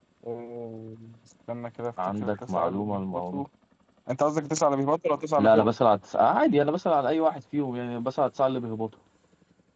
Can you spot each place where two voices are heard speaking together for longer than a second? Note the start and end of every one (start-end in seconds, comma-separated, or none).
2.0-3.4